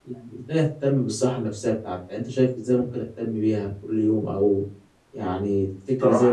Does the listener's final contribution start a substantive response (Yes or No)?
Yes